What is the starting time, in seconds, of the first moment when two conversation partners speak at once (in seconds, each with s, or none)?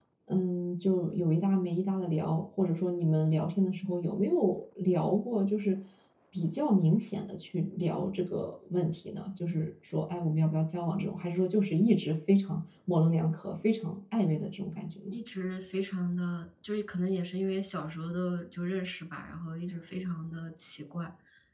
none